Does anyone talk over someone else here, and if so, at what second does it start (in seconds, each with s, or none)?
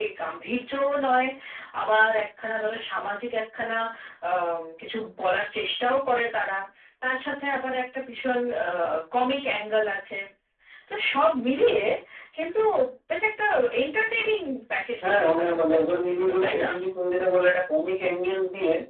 15.0 s